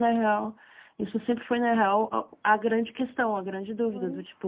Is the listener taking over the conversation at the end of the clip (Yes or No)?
No